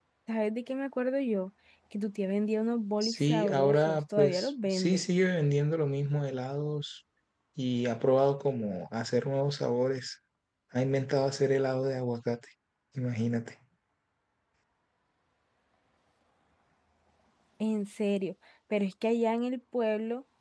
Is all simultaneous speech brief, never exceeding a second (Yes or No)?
No